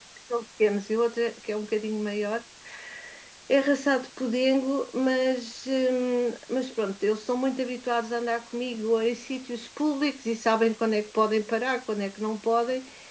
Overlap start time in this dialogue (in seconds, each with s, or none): none